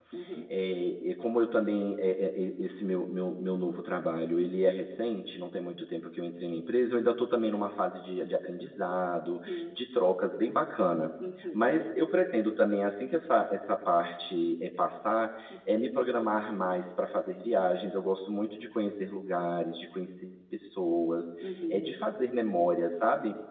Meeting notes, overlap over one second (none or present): none